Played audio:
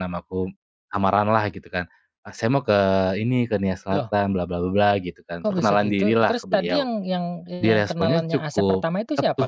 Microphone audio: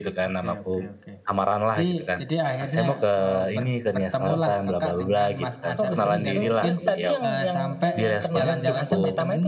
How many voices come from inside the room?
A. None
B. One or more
B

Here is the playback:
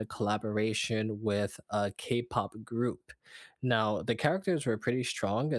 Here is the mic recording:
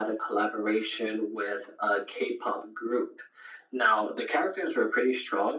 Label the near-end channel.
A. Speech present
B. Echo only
B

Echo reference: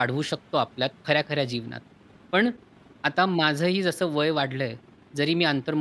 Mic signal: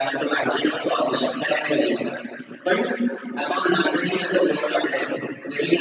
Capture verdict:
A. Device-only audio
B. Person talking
A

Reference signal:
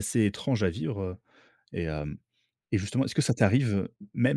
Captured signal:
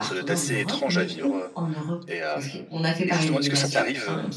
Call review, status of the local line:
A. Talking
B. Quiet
A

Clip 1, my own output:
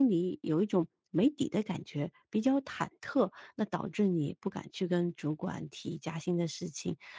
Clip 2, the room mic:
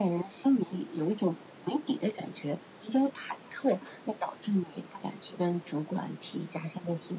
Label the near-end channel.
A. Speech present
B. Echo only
B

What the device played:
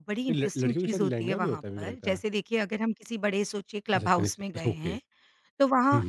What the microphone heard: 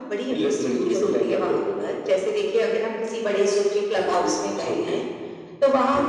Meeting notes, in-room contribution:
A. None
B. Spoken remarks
A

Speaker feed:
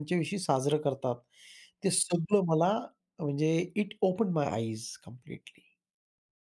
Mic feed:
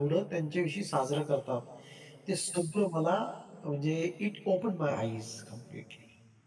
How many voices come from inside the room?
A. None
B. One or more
A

